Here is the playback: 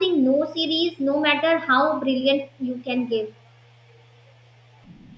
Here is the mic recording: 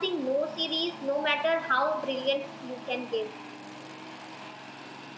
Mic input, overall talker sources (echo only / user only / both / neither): echo only